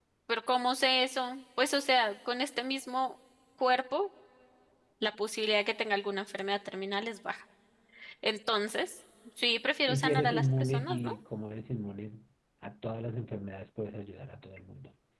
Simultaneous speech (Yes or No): Yes